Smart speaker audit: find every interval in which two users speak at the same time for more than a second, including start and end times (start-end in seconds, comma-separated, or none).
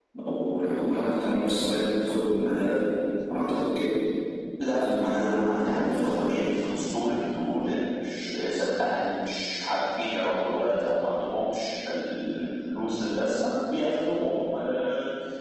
4.7-6.6